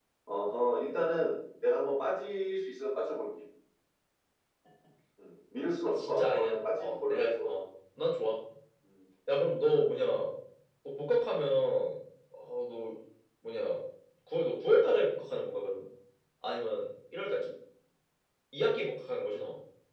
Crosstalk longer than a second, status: present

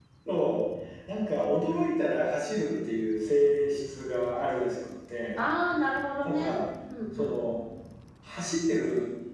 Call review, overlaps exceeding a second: none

